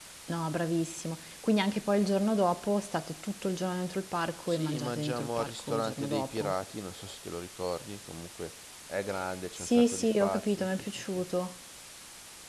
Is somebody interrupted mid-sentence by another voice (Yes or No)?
Yes